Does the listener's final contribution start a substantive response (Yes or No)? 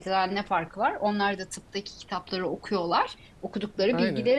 No